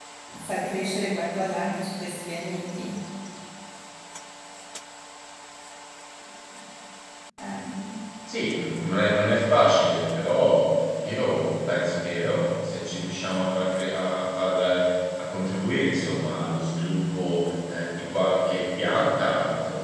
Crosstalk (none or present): none